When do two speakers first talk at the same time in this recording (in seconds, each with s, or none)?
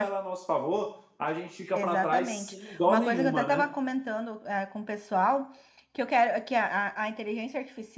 1.7 s